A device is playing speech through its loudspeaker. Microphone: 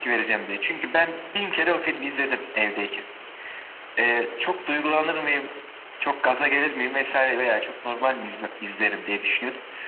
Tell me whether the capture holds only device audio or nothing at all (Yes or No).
Yes